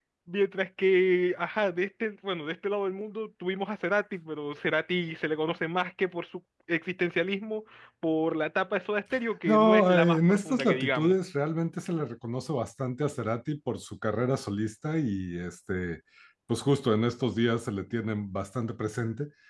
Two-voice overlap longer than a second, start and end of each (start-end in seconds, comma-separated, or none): 9.4-11.1